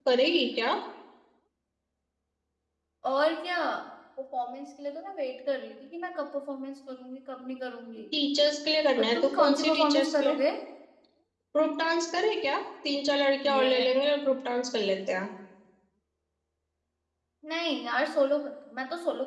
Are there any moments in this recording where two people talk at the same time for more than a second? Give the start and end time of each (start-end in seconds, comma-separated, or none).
9.0-10.4